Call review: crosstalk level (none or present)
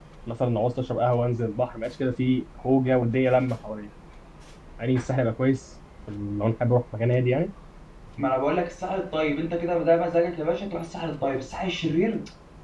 none